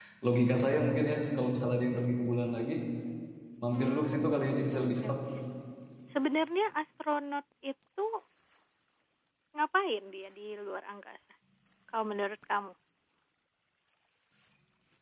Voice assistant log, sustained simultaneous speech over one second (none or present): present